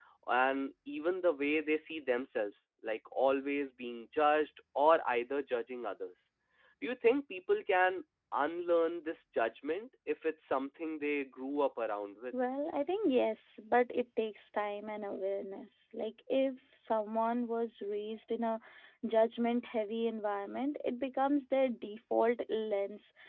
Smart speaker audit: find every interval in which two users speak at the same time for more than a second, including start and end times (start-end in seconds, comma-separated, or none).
none